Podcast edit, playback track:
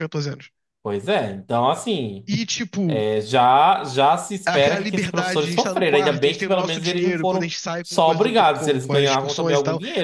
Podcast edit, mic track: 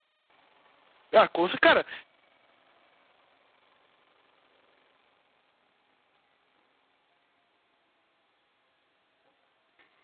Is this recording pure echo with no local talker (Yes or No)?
No